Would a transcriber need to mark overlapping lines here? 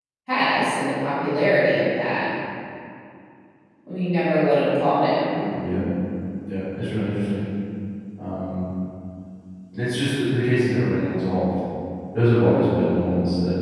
No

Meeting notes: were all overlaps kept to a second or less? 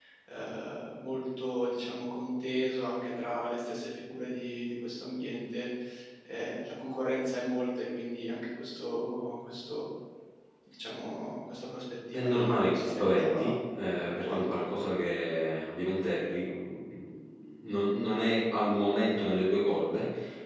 No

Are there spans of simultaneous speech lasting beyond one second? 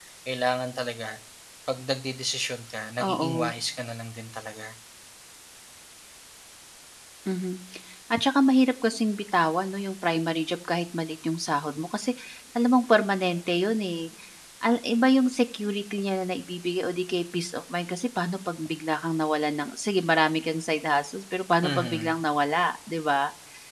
No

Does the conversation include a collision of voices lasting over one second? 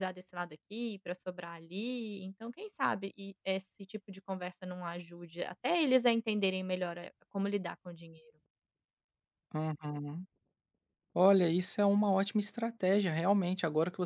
No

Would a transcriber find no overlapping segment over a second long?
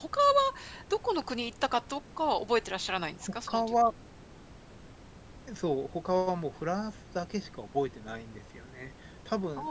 Yes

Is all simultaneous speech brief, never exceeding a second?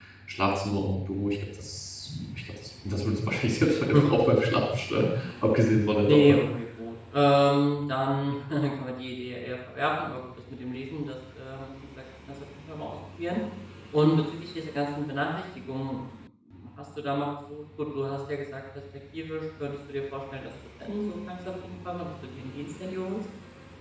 Yes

